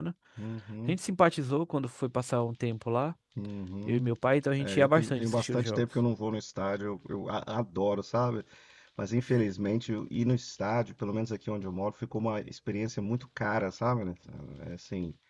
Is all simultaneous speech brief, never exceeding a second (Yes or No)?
No